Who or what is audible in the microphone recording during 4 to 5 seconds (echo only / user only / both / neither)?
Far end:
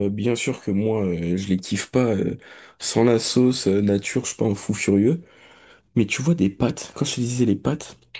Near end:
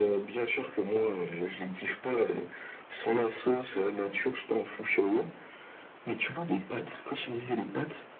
echo only